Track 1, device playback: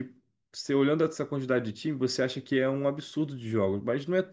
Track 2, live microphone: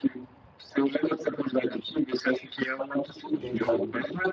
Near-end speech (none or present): present